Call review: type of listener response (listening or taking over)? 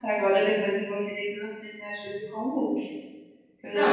taking over